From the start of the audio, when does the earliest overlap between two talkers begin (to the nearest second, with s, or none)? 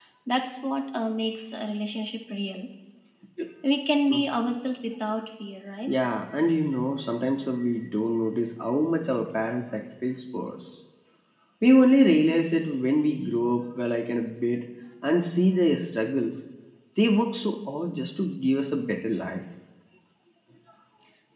none